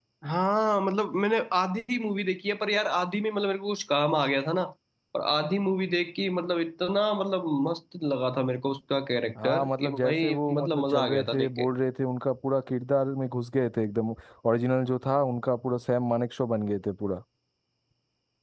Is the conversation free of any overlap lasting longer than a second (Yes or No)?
No